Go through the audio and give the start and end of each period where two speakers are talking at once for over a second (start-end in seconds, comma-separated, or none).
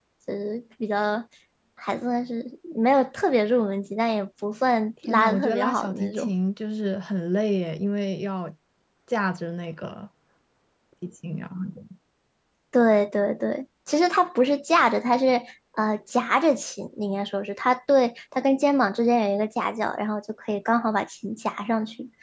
5.1-6.3